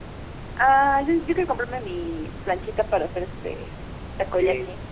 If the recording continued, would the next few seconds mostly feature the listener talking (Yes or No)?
Yes